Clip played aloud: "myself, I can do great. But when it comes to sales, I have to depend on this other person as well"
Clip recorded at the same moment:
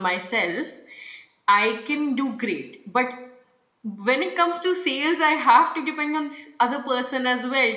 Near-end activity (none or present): none